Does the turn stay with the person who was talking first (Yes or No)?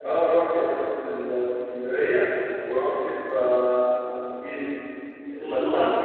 Yes